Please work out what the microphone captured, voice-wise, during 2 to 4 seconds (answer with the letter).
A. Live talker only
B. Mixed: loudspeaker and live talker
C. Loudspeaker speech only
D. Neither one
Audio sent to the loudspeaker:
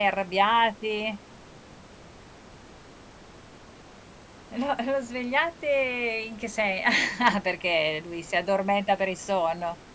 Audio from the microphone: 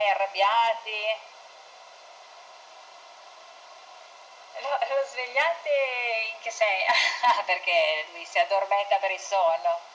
D